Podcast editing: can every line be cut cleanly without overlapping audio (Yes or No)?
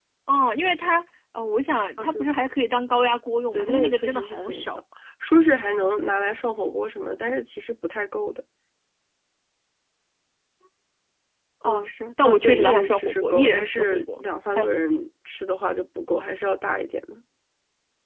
No